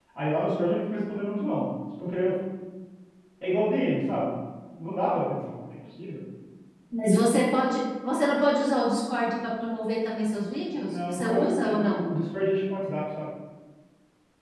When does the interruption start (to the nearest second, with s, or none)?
11 s